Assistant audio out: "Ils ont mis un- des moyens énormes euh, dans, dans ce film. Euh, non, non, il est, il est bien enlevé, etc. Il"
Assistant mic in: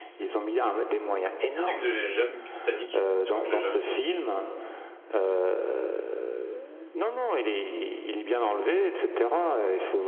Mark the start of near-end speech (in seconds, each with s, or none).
1.5 s